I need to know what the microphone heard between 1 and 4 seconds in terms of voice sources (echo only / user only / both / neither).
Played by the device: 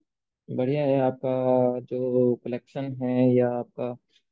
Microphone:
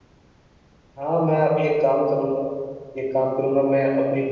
user only